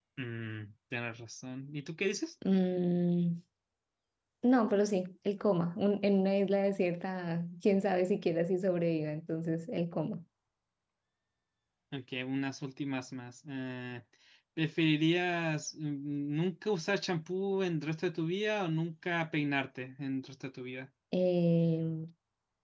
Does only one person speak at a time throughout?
Yes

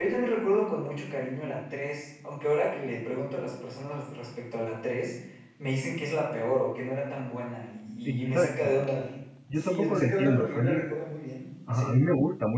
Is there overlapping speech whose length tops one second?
Yes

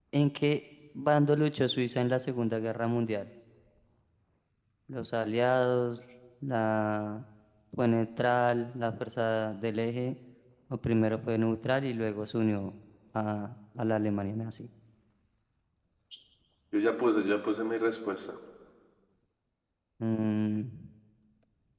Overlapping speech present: No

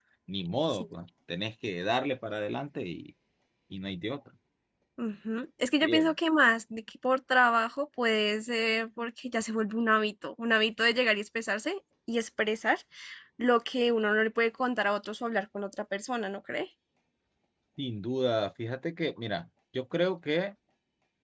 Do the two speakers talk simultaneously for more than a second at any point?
No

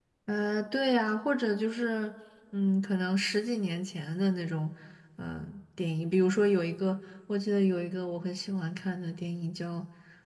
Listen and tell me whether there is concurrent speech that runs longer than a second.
No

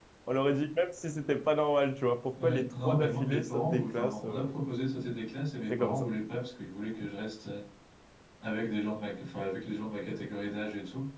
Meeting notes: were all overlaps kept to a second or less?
No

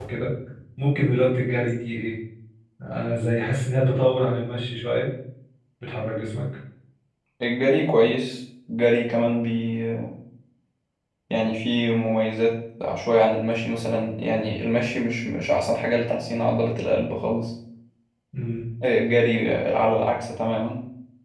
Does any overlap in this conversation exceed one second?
No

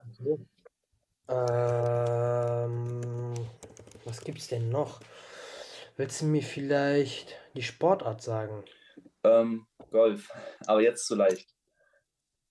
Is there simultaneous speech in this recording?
No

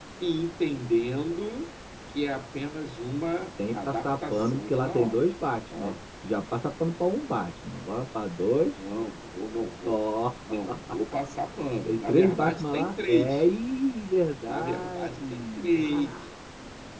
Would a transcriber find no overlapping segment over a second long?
No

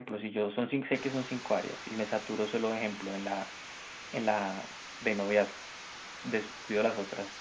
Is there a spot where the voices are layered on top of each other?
No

